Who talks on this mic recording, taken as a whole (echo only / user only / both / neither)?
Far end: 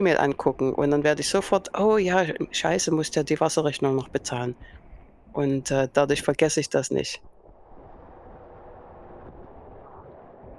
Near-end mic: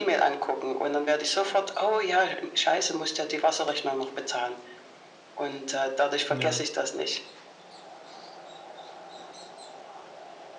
both